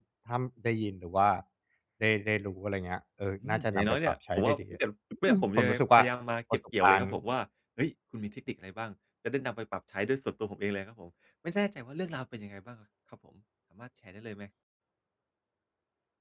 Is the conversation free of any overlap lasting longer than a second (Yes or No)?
No